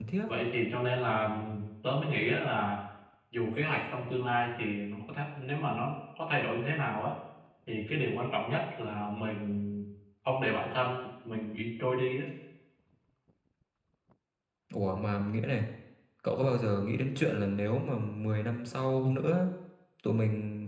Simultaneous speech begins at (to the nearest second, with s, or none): none